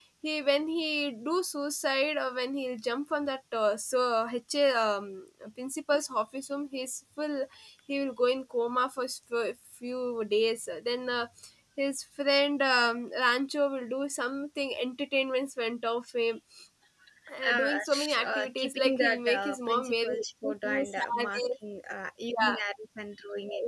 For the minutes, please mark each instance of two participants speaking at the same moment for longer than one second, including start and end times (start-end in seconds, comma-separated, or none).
17.5-21.4